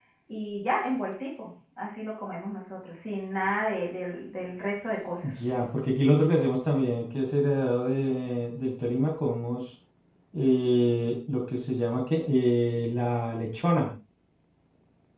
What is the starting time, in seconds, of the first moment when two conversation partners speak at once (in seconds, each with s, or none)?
none